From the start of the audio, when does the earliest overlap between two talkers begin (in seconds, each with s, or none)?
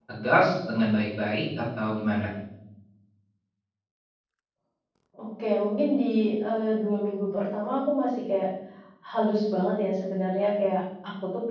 none